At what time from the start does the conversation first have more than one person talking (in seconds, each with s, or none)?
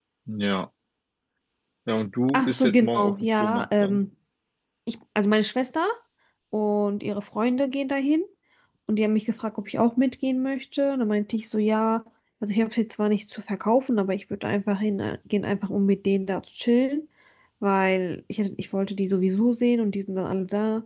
2.3 s